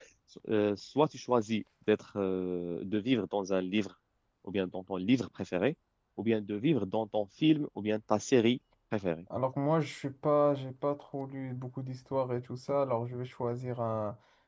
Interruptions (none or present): none